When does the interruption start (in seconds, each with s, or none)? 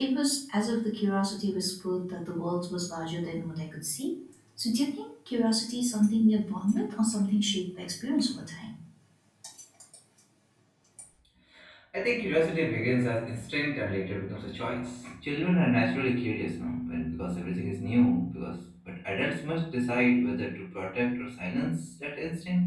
none